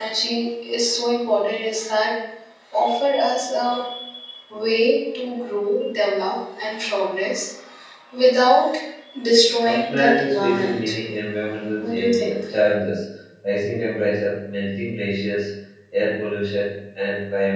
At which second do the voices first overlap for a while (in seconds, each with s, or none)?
9.6 s